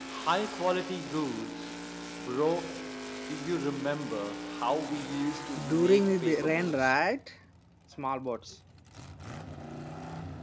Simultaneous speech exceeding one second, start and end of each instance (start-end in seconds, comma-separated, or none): 5.5-6.9